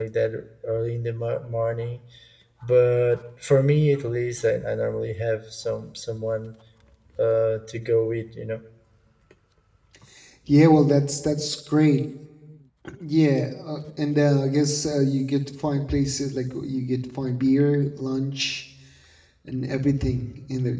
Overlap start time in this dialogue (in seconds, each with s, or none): none